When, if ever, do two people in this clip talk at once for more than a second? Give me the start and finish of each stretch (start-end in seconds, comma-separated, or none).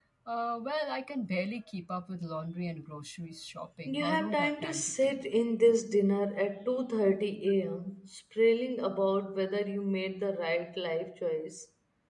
3.9-5.2